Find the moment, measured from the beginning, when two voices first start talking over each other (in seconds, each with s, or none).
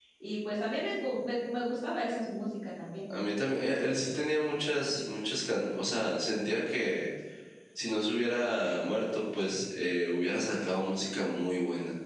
none